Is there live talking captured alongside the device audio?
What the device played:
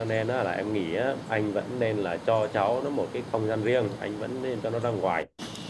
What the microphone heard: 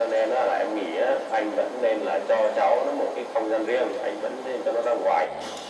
No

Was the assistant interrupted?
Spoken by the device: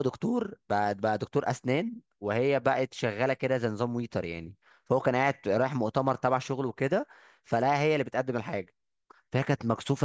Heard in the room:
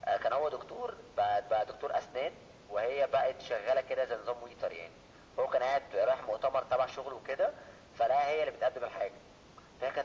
No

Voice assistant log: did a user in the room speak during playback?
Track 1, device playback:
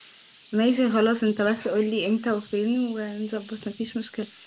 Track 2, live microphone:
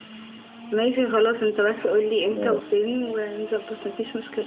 Yes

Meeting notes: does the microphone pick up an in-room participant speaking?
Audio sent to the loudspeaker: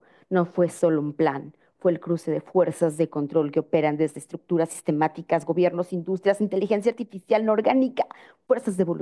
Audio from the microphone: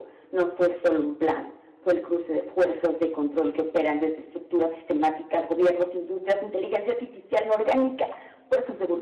No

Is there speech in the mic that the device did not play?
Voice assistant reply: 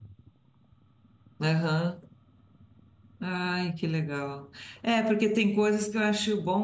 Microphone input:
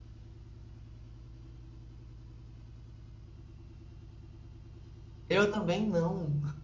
Yes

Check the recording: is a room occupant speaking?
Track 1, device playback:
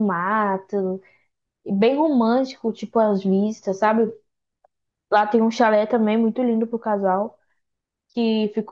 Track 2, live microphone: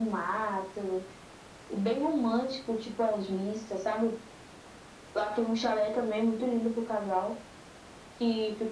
No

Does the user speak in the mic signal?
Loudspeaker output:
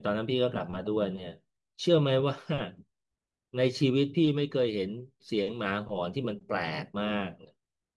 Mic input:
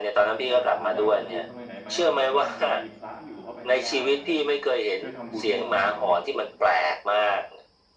Yes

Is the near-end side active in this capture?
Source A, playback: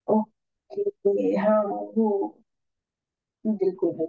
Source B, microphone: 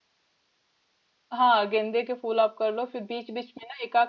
Yes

